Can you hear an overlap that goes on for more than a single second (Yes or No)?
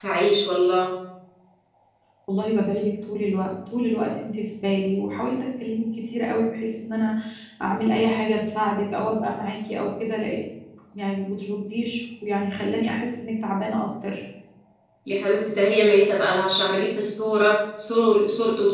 No